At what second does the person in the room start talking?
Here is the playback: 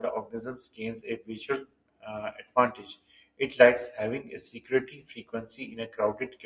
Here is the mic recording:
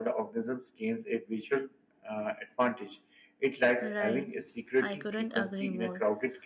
4 s

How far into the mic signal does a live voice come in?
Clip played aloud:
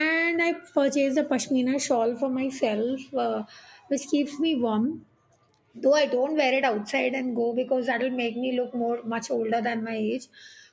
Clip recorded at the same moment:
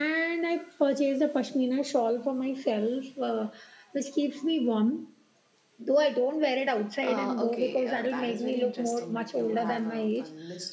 7 s

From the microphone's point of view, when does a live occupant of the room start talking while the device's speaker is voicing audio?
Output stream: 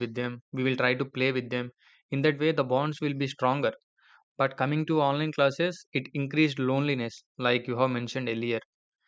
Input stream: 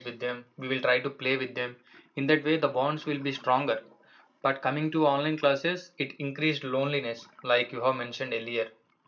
none

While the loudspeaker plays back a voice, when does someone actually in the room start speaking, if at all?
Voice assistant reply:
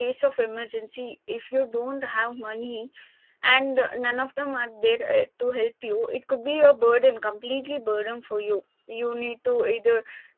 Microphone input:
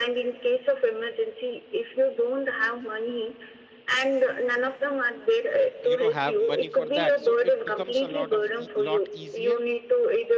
6 s

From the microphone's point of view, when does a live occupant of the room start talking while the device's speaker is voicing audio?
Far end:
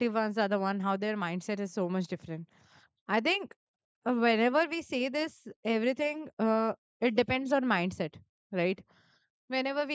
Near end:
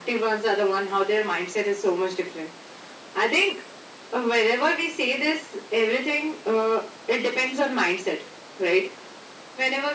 none

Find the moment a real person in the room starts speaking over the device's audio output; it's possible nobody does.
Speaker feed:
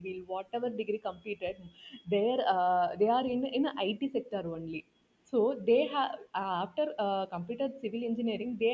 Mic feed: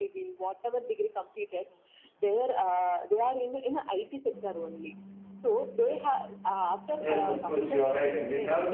7 s

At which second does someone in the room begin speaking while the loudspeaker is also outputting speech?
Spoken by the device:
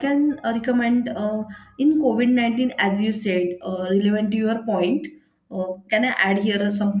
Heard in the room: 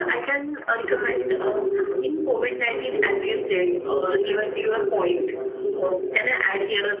1 s

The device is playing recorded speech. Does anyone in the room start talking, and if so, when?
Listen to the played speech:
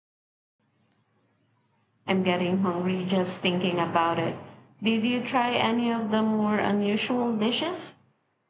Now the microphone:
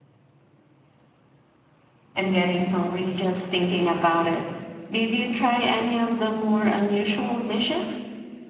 none

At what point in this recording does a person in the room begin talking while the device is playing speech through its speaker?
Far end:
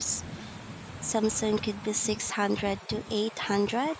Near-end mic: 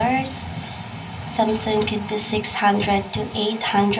none

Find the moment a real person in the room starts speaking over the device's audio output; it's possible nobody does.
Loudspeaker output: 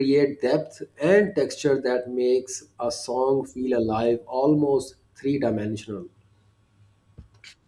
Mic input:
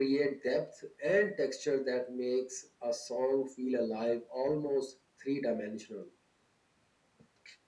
none

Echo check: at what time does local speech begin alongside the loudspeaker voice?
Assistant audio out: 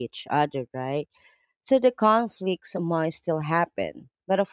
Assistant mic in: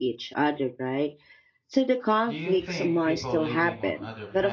2 s

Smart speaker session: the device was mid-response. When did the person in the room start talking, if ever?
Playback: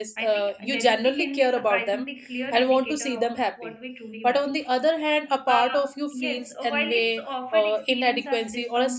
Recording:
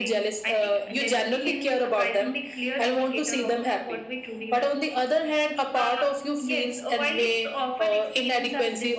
none

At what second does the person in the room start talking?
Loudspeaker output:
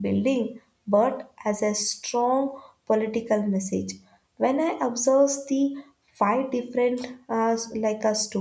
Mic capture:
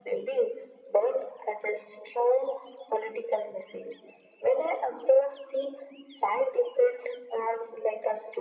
none

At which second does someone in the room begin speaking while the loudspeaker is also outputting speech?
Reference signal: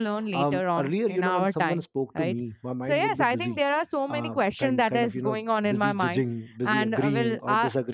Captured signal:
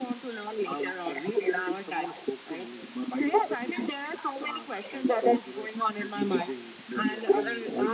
none

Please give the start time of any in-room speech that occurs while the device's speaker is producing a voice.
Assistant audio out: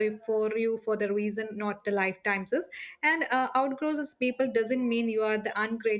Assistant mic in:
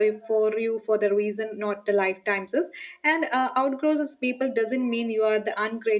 none

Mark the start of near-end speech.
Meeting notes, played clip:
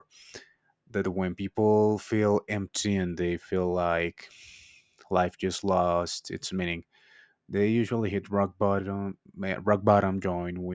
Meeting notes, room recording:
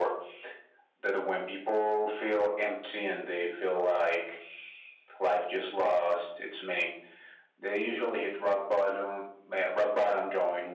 none

